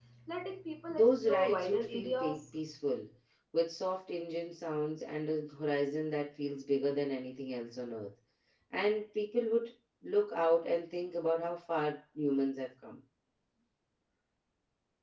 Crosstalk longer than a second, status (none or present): present